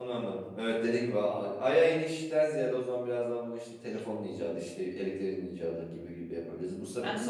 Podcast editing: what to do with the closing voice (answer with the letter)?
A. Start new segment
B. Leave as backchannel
B